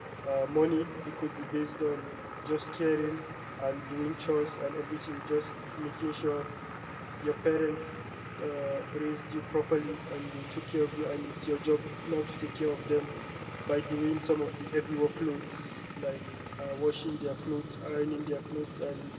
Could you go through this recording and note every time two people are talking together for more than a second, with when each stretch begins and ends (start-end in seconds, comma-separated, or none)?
none